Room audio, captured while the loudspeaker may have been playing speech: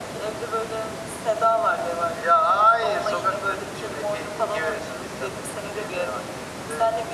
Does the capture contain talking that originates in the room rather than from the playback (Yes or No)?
No